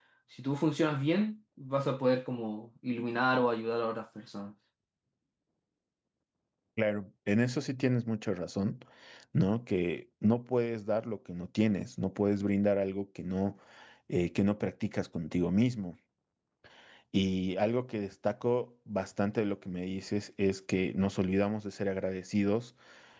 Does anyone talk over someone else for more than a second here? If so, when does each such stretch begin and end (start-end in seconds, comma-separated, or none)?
none